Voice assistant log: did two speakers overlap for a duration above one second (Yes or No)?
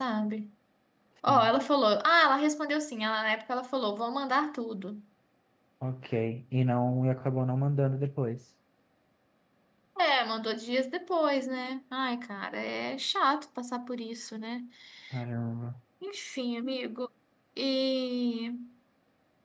No